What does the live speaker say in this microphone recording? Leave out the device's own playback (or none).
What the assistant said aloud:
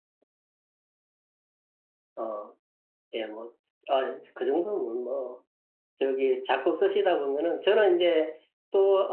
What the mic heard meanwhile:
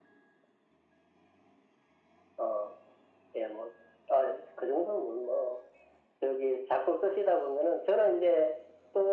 none